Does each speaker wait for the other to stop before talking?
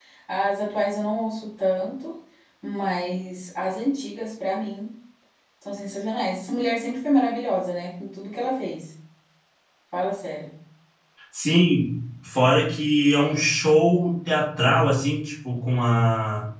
Yes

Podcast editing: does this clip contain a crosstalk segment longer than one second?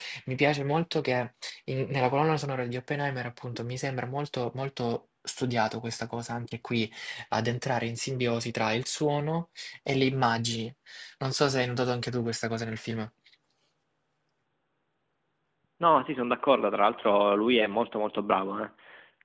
No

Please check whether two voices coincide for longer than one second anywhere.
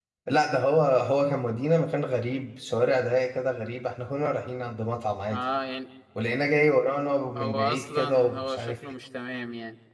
Yes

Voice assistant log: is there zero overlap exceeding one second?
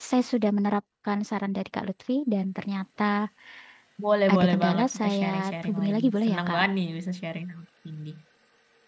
No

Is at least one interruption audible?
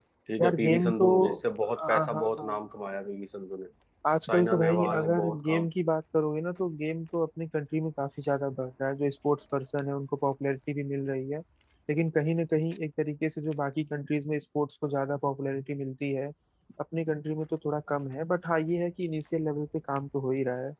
Yes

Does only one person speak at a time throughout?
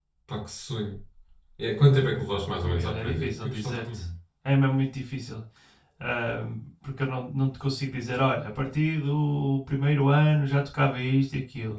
No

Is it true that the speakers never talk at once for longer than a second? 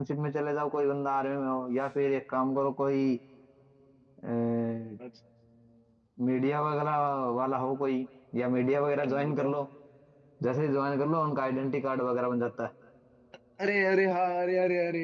Yes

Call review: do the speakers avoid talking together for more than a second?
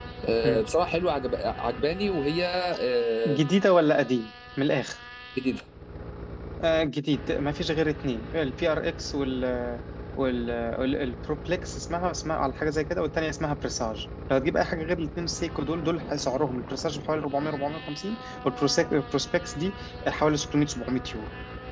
Yes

